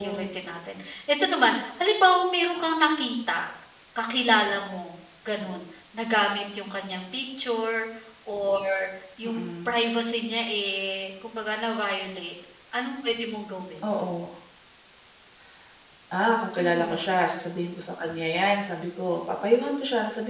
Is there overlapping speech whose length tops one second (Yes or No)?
No